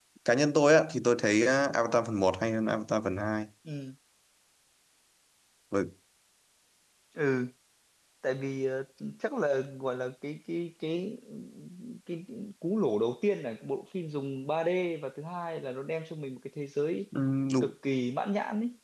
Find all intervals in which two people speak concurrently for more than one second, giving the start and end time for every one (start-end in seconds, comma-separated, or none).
none